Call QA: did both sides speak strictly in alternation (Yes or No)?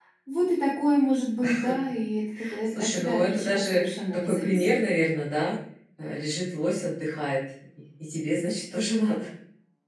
No